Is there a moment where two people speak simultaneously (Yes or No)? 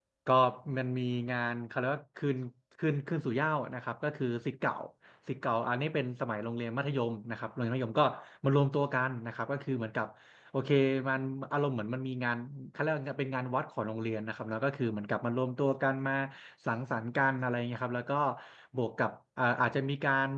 No